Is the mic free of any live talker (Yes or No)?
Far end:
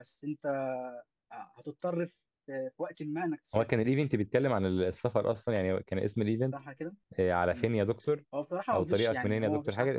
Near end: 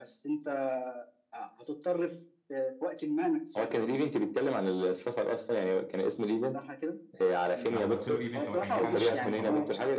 No